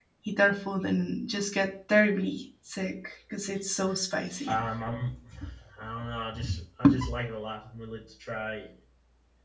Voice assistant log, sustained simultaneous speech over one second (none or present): none